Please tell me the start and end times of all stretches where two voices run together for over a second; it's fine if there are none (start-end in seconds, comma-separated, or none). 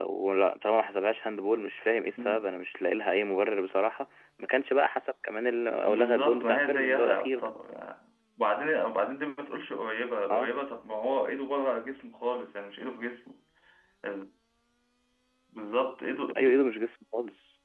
5.8-7.5